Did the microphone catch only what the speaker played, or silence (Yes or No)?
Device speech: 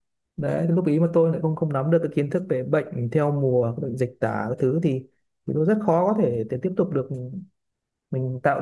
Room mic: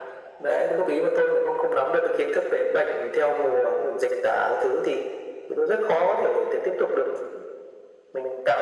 Yes